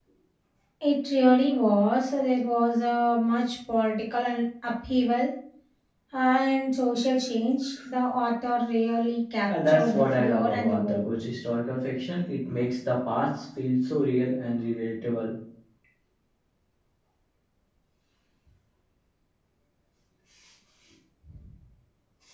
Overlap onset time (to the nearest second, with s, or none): 9 s